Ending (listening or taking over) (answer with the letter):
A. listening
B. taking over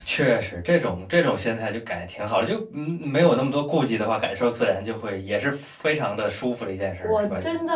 B